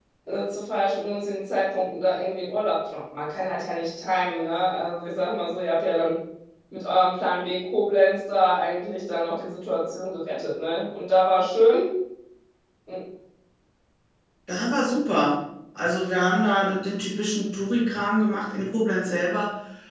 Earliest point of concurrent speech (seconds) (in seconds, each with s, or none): none